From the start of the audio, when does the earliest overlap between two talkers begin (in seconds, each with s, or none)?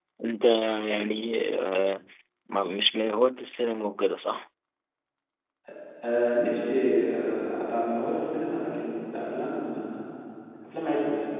none